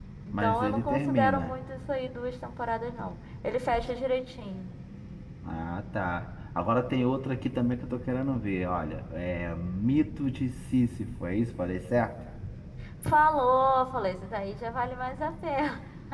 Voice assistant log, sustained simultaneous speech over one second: present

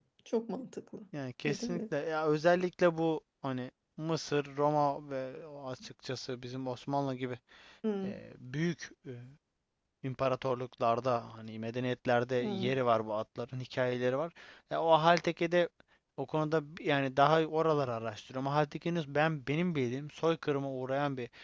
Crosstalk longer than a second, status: none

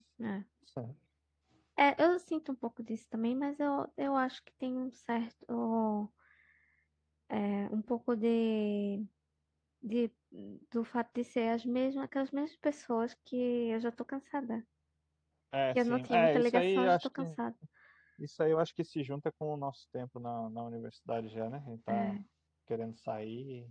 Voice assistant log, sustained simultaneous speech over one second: present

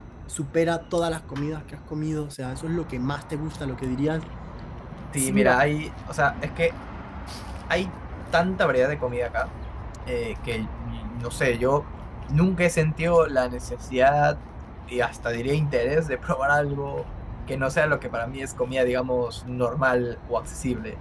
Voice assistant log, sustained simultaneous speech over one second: none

